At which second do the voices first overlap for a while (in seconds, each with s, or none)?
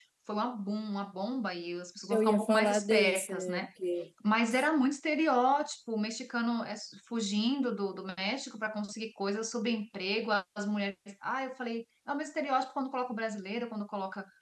2.1 s